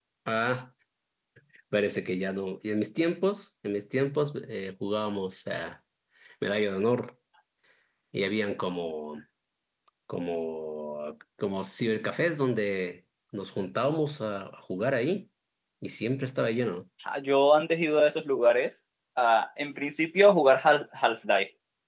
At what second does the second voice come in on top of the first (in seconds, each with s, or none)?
none